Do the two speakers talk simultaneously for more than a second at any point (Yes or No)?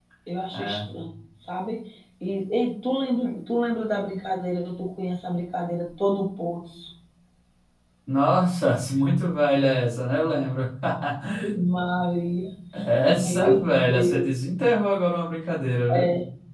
Yes